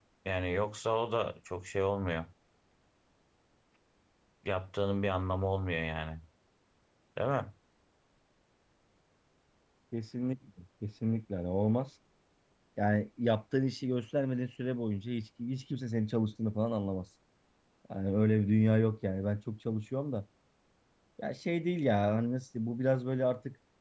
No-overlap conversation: Yes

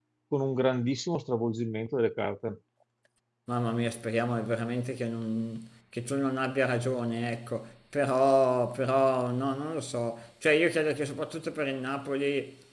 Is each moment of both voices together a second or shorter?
Yes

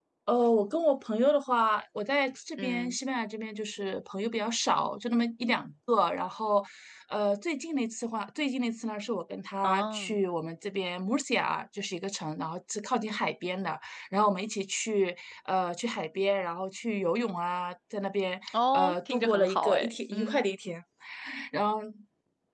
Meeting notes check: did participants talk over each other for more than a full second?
Yes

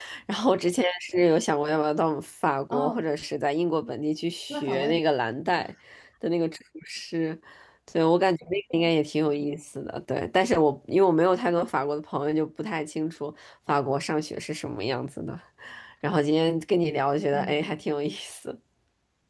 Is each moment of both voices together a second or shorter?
Yes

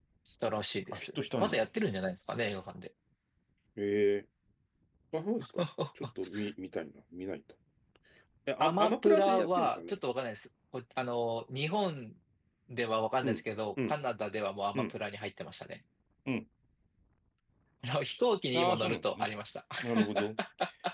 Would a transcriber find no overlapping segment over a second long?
No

